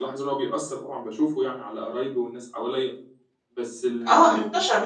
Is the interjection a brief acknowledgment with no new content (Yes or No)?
No